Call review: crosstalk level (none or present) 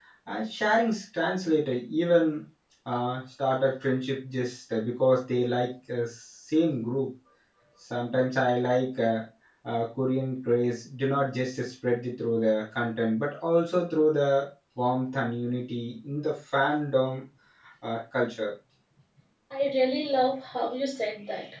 none